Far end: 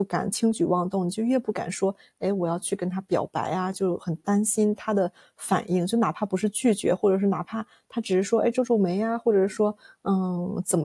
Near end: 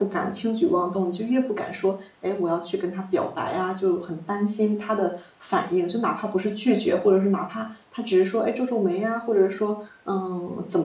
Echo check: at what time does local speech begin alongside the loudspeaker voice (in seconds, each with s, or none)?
none